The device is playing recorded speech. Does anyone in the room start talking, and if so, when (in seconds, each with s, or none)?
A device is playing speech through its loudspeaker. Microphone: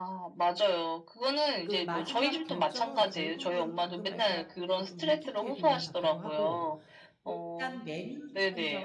1.6 s